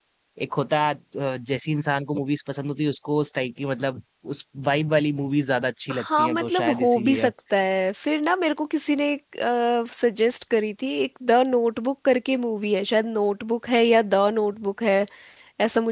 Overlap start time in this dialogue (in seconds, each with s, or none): 5.9 s